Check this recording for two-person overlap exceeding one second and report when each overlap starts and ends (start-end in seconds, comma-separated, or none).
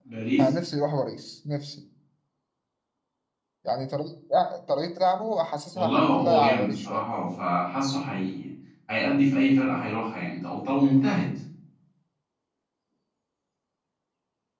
5.7-7.0